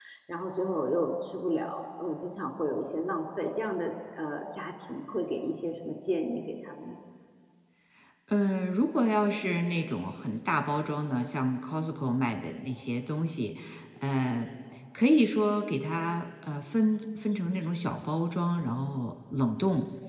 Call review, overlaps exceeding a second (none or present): none